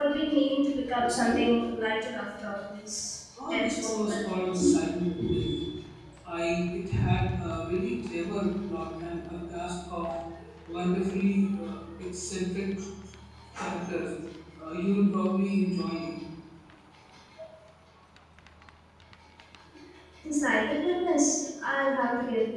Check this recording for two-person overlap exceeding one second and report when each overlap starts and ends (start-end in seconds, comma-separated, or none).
3.4-4.8